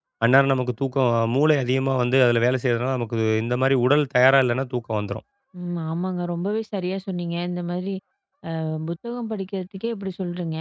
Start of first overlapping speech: none

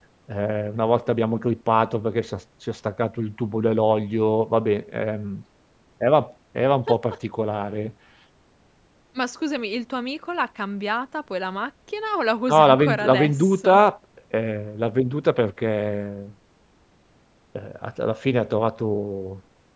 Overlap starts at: 12 s

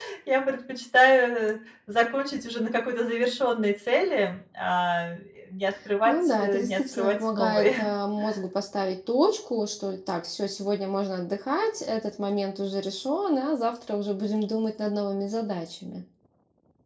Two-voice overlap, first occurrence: 6 s

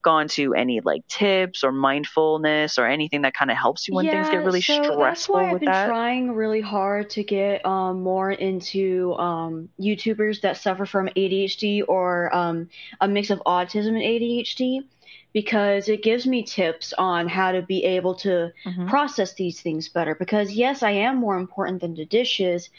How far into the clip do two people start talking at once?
4 s

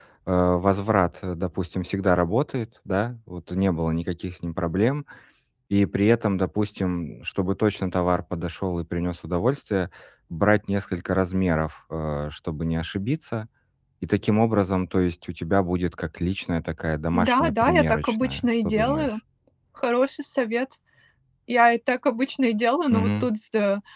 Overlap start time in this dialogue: 17 s

